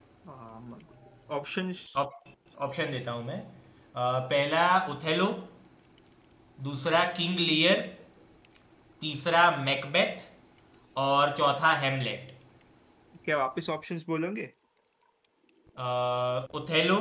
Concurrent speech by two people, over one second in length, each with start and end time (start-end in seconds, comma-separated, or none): none